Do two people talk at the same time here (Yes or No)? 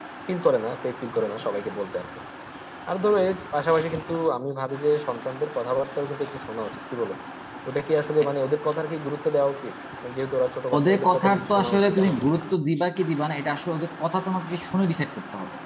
Yes